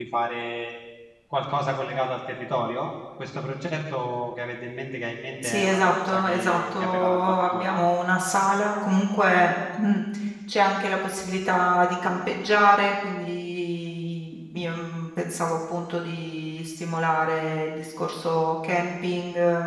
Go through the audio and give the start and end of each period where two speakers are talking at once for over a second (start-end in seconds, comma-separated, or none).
5.4-7.8